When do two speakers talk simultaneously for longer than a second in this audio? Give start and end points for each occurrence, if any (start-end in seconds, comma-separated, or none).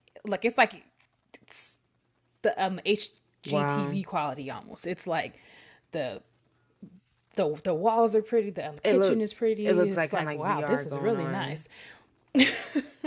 9.7-11.6